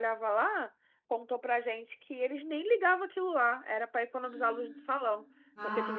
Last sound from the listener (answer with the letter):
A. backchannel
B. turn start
A